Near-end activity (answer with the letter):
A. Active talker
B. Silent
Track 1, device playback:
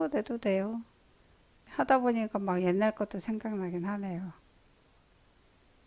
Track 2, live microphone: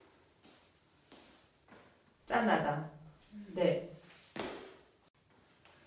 A